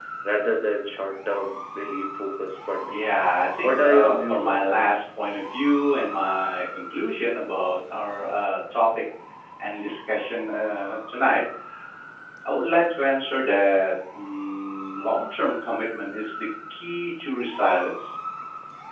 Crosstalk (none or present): present